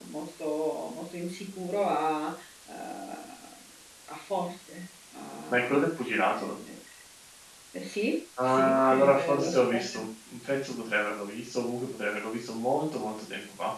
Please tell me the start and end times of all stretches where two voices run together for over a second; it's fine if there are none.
8.4-9.8

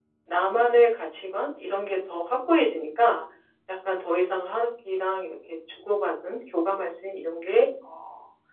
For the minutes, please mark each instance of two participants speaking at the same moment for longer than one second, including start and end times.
none

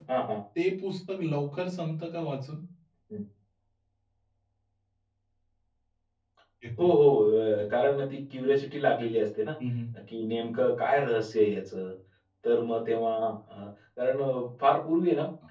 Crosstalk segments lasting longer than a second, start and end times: none

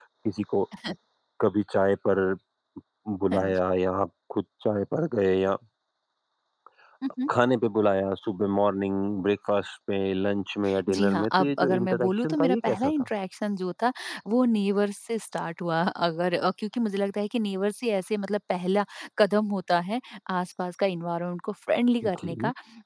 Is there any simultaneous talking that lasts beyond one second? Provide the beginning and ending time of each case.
10.9-12.9

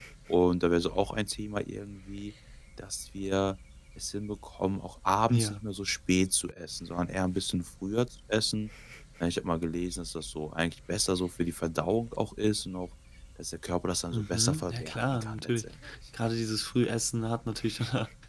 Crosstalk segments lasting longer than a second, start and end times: 14.1-15.6

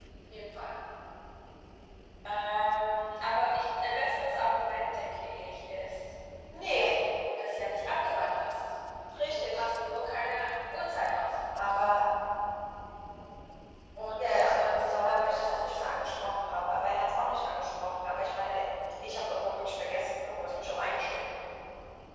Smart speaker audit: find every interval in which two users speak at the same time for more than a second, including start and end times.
14.2-16.3

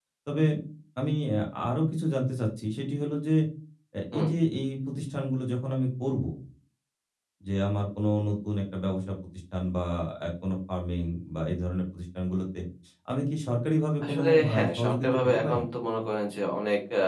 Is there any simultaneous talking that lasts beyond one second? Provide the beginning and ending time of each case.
14.0-15.6

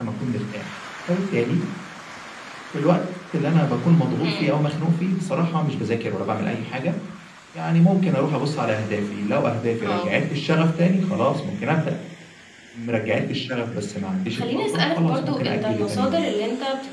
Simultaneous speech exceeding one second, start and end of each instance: 14.2-16.2

